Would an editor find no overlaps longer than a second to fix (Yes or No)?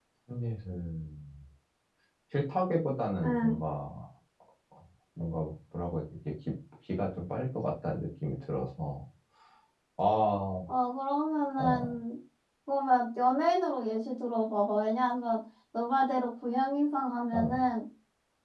Yes